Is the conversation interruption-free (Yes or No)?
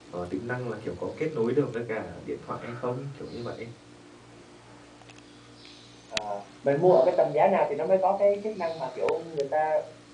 Yes